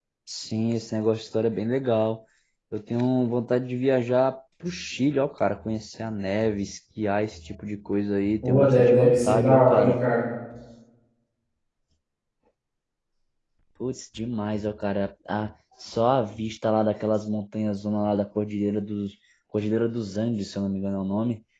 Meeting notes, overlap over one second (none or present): present